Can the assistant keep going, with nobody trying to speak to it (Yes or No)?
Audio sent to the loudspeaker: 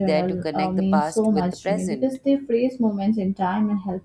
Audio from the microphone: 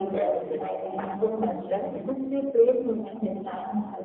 Yes